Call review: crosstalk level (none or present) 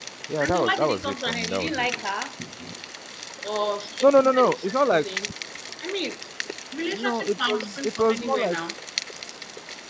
present